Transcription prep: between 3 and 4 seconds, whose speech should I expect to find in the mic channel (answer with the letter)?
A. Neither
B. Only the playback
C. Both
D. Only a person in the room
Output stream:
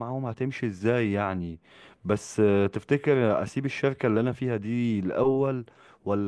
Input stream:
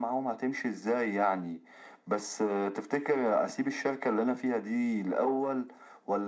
B